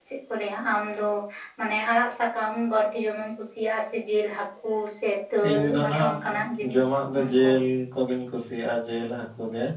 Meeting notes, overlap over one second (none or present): present